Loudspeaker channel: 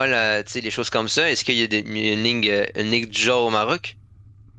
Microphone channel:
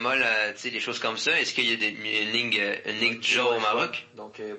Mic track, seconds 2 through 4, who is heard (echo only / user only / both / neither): both